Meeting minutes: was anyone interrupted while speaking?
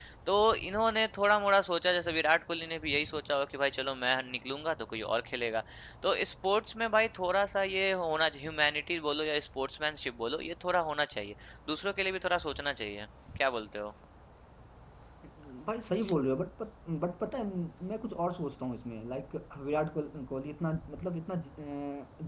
No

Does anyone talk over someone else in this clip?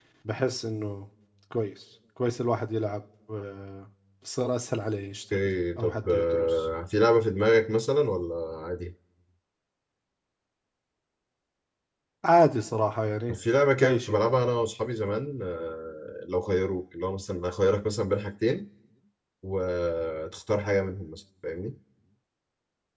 Yes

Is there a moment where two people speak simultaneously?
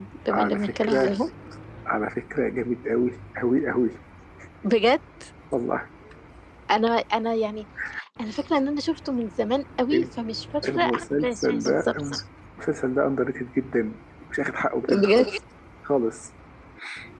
Yes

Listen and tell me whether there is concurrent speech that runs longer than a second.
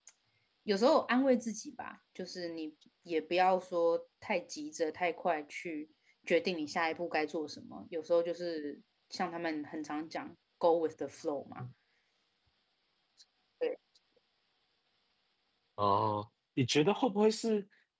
No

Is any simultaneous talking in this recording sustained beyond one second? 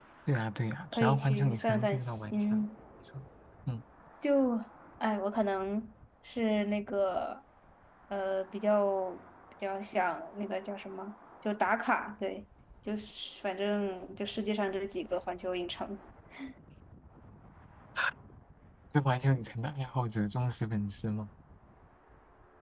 Yes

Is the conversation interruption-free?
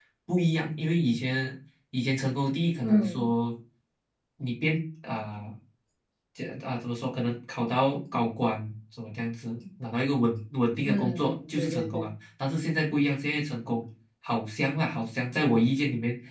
No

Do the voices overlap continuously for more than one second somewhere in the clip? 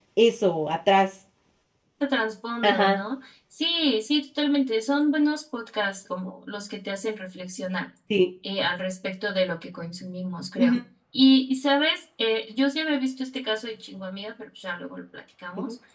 No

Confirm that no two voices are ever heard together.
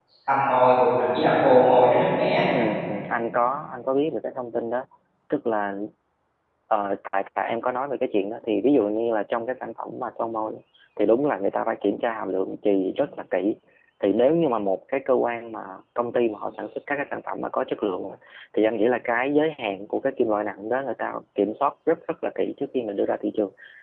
Yes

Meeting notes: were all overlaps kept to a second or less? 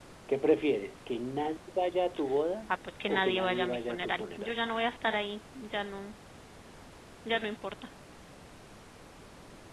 No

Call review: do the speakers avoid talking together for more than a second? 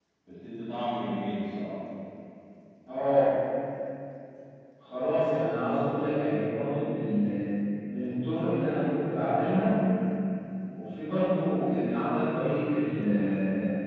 Yes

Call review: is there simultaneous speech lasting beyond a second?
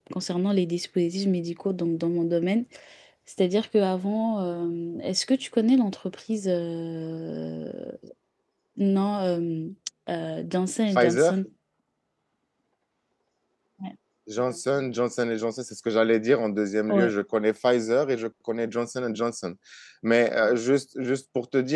No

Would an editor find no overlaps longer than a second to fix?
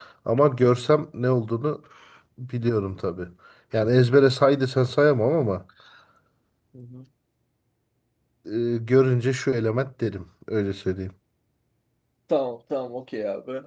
Yes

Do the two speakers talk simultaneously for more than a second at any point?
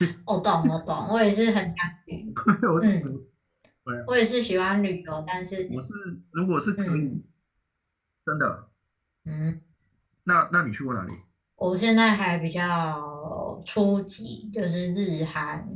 No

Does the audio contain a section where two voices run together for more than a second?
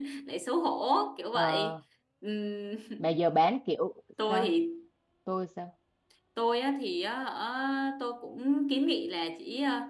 No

